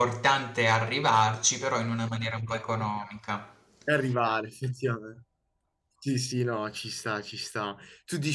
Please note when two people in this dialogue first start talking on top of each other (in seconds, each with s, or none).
none